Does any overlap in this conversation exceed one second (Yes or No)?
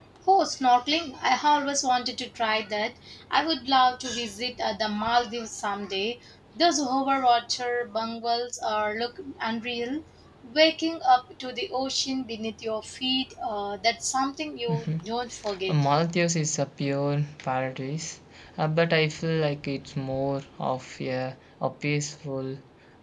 No